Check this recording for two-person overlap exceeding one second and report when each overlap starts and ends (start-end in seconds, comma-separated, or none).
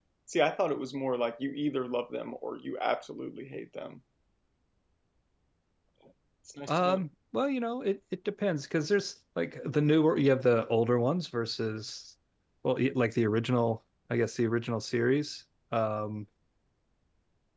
none